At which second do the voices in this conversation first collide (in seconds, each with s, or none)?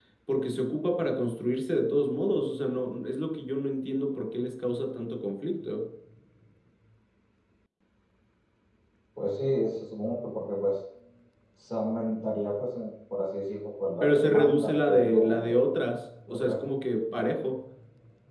14.0 s